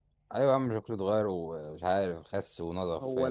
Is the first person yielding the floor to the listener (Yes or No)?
Yes